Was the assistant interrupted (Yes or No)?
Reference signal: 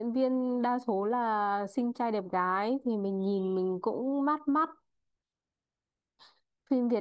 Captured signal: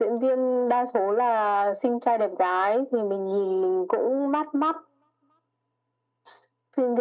No